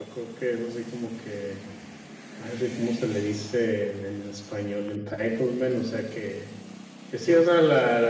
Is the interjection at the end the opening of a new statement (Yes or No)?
No